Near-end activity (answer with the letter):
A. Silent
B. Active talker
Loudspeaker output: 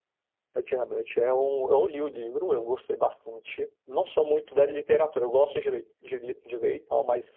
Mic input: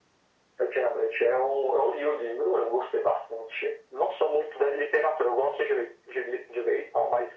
A